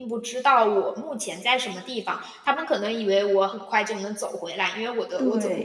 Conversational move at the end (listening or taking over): listening